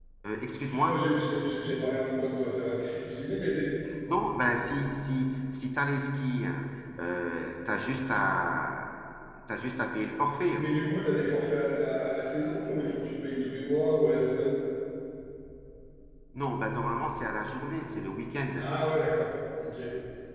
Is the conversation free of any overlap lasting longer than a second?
Yes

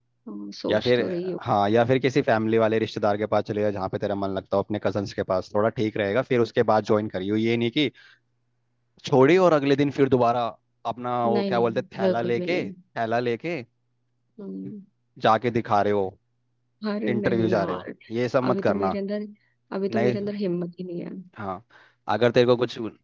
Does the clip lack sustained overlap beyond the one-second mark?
No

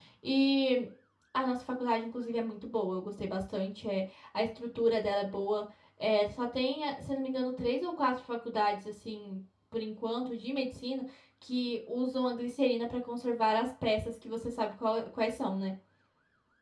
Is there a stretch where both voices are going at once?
No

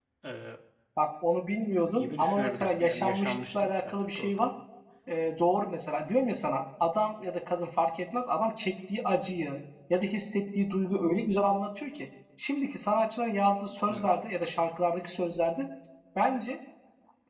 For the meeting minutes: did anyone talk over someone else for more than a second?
Yes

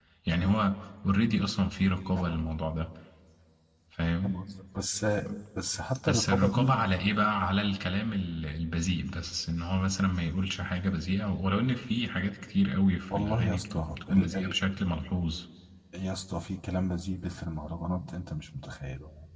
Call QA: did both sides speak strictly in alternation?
No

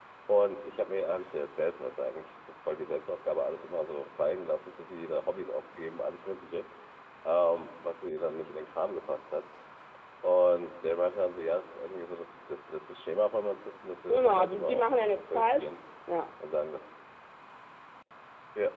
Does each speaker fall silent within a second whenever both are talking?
No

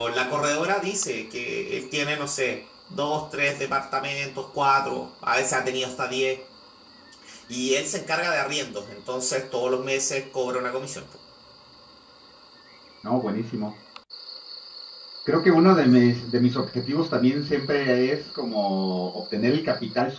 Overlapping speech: No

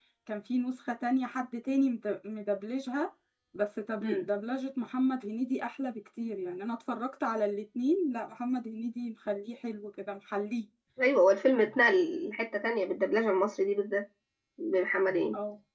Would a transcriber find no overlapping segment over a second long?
Yes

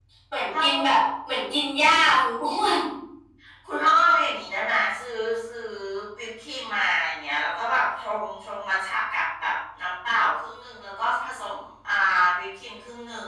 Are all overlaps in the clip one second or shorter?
Yes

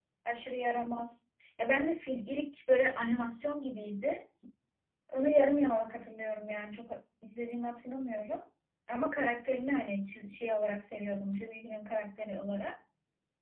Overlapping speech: No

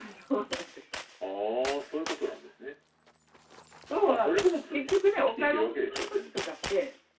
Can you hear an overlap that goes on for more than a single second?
Yes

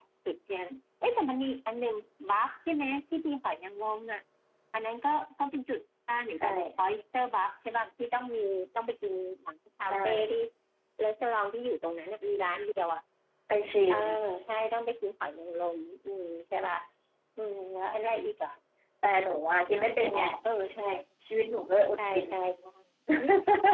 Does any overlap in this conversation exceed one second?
No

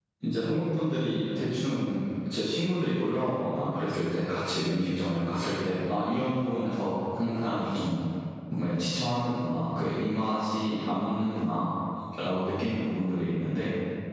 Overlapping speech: No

